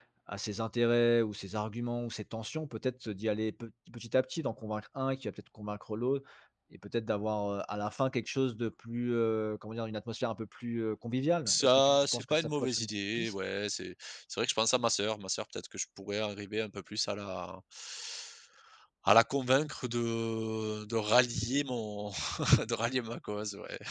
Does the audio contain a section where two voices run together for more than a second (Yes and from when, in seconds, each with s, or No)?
Yes, from 11.5 s